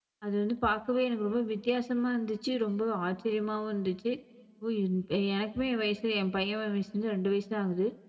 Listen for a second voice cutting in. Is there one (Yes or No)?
No